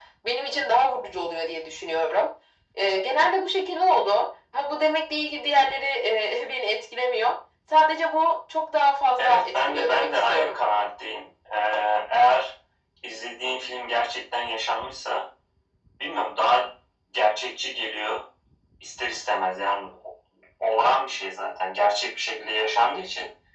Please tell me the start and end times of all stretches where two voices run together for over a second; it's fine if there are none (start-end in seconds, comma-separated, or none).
9.2-10.6